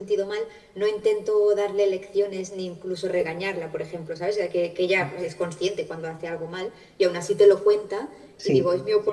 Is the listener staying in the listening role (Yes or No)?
Yes